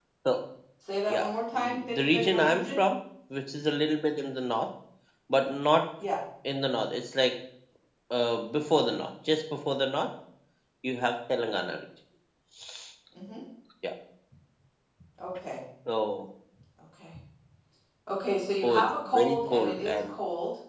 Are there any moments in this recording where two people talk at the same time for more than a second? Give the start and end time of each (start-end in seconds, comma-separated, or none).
1.1-2.8, 18.6-20.0